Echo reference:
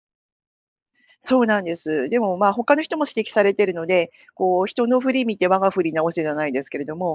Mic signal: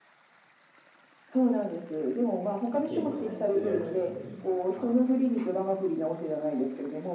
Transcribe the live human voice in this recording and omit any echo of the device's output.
お稽古じゃないですけど、やるときに、あの

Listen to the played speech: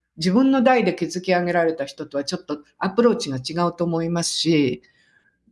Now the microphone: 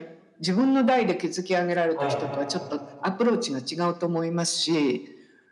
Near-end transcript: はい、

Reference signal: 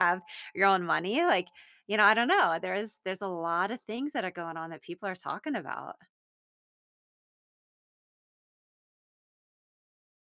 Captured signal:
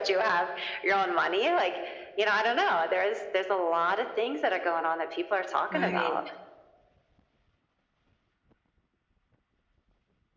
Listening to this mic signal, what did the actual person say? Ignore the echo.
Right.

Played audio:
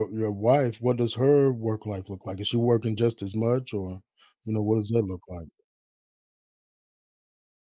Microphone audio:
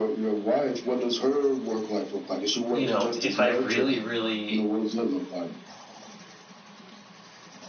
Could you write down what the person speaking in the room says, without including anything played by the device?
you know, if I really really

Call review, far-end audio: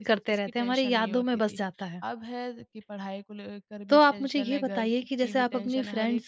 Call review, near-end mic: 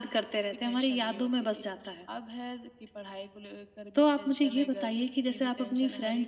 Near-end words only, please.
none

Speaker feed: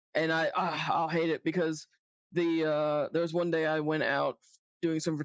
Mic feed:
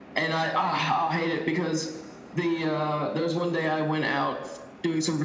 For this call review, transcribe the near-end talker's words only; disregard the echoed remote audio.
none

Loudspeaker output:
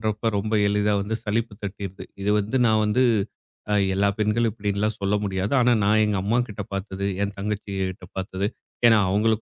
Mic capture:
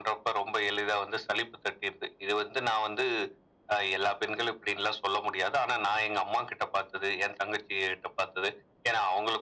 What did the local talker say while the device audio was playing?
none

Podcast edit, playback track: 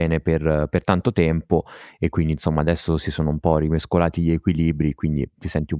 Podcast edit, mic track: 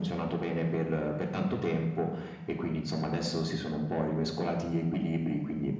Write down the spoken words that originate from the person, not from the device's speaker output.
none

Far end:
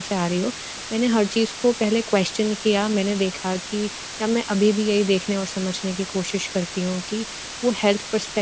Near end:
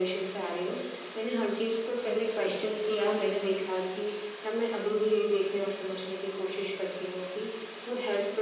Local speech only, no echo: none

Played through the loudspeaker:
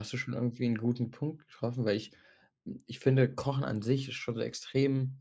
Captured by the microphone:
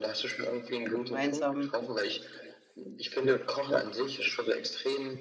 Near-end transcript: gemeinsam

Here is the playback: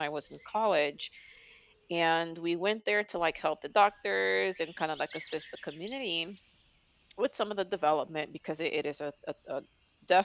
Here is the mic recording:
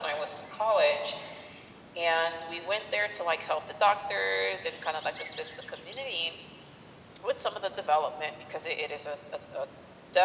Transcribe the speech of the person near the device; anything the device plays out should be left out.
none

